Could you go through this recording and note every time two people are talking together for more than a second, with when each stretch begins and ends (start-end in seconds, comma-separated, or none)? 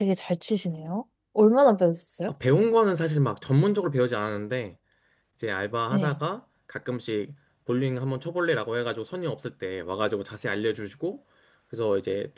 none